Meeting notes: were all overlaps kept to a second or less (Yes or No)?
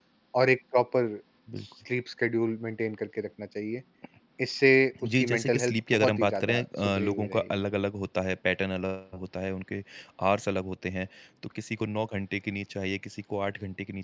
No